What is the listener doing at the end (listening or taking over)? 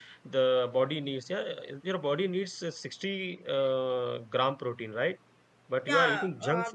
taking over